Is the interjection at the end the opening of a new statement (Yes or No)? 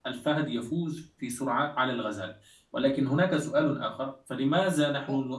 No